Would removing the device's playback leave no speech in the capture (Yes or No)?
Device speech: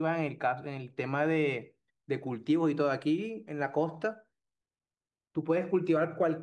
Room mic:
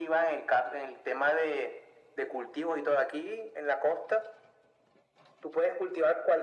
Yes